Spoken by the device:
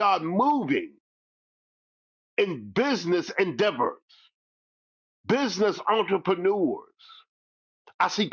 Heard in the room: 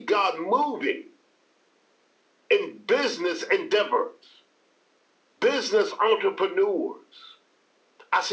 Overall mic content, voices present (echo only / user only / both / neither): echo only